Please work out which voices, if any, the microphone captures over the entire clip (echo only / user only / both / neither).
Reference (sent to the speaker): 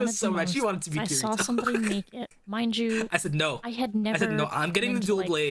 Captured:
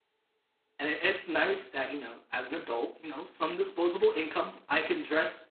user only